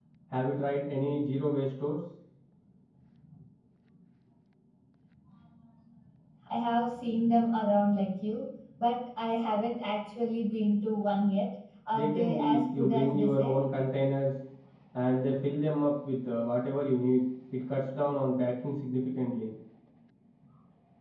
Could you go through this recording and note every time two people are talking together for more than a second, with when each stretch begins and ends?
11.9-13.6

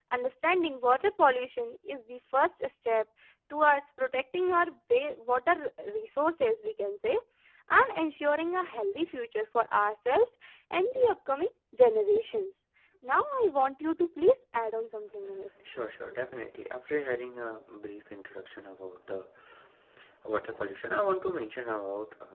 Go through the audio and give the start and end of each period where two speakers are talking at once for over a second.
none

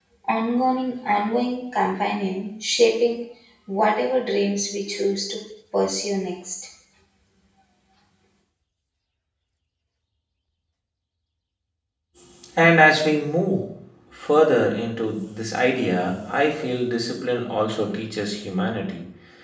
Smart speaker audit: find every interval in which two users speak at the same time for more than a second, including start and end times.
none

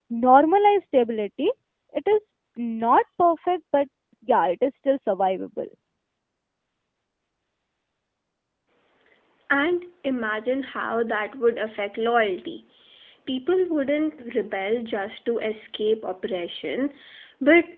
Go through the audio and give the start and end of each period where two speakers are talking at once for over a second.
none

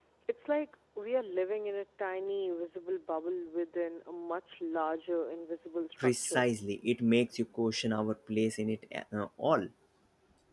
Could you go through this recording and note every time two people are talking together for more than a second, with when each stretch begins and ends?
none

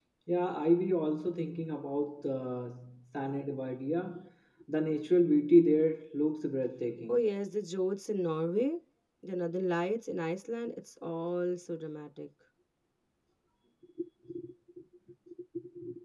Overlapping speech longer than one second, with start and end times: none

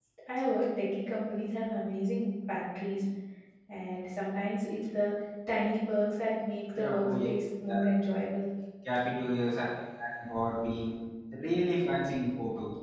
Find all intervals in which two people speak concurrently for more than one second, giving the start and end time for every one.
none

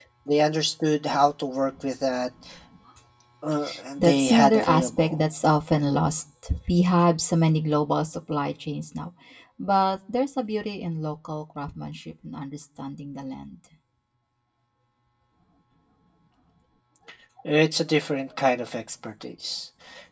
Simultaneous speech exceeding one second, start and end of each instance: 4.0-5.2

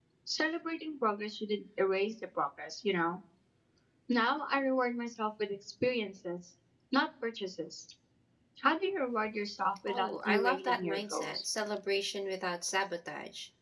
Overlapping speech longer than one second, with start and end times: 9.9-11.4

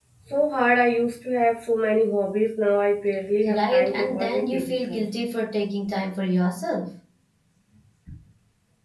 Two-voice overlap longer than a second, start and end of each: 3.5-5.0

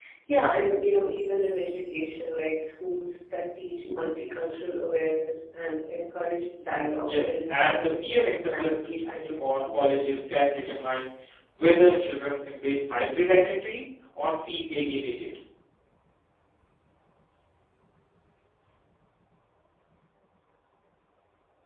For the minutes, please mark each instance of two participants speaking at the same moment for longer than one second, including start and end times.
7.1-10.7

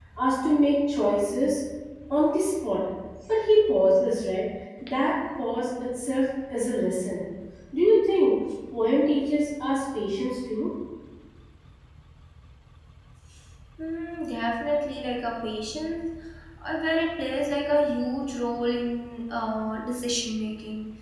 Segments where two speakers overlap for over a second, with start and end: none

